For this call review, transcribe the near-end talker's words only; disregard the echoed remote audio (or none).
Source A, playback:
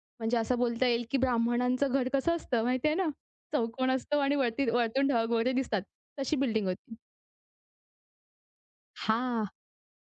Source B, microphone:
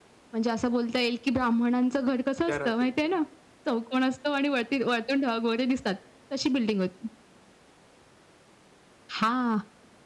त्या रात्रीच्या?